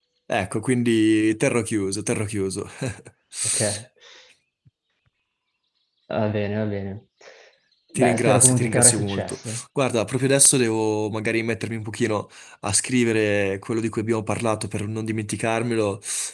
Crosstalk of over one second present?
Yes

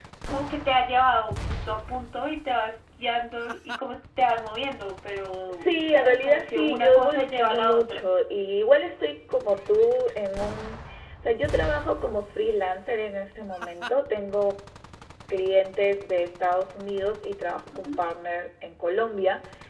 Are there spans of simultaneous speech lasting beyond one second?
Yes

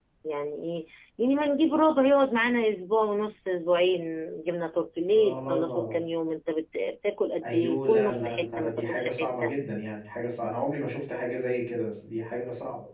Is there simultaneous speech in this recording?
Yes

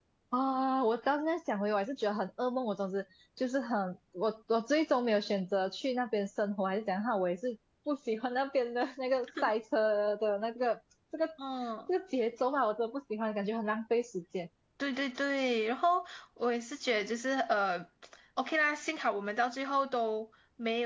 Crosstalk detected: No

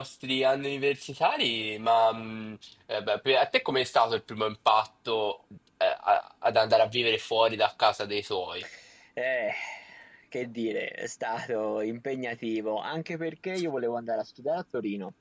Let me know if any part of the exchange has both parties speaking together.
No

